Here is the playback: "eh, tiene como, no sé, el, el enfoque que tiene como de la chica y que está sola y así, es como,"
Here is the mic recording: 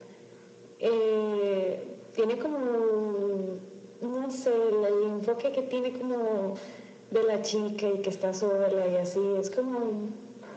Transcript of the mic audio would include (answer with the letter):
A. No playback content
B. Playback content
B